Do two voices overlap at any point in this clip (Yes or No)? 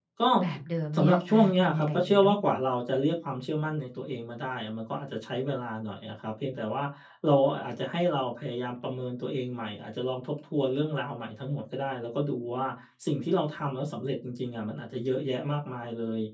Yes